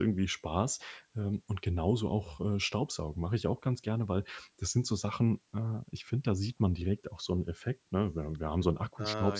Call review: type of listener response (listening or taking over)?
listening